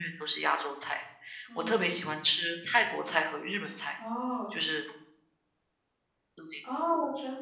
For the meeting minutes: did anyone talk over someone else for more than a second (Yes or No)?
No